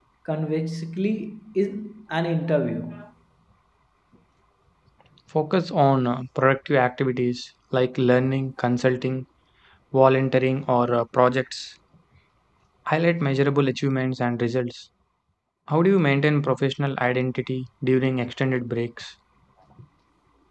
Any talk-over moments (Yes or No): No